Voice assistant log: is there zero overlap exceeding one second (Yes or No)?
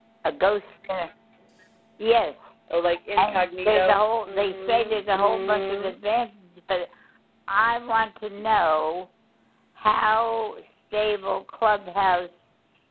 No